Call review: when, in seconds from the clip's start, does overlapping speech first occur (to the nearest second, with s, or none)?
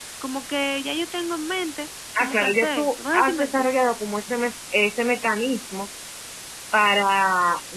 2 s